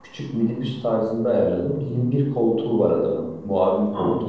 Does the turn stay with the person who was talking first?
No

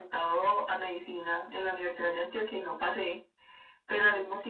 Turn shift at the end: No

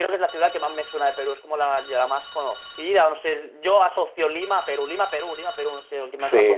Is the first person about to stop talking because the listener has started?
Yes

